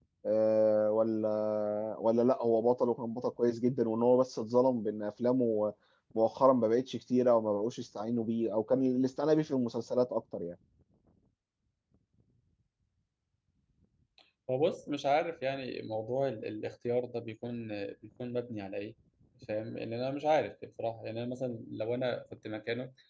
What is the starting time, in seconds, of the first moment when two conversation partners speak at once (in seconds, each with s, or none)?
none